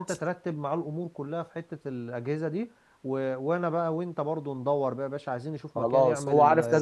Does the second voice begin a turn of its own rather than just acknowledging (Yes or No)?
Yes